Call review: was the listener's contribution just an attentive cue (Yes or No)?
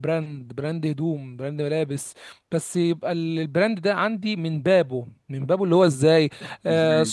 Yes